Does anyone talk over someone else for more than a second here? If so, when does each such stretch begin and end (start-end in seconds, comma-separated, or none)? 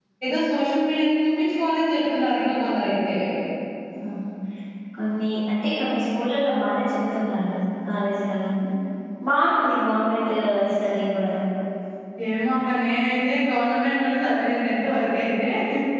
none